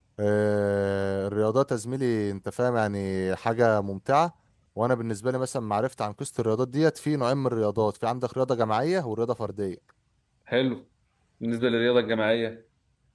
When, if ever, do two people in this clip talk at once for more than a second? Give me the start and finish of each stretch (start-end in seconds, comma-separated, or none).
none